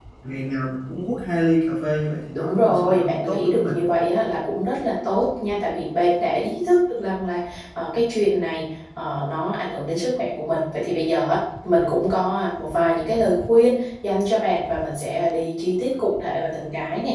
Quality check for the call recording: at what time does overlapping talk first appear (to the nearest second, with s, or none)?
2 s